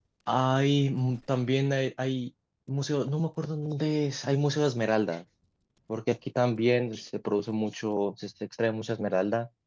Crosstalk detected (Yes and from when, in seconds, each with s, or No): No